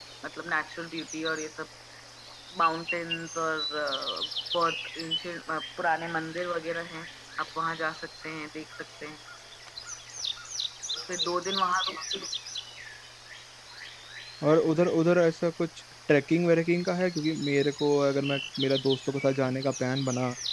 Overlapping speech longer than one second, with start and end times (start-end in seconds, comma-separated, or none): none